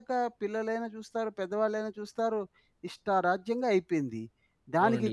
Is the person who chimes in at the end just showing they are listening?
No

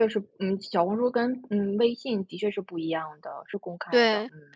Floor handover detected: Yes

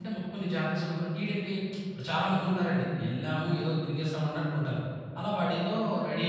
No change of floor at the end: No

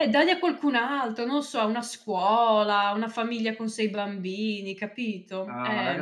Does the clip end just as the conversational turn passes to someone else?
Yes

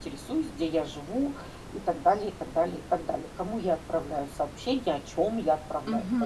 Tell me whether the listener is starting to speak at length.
Yes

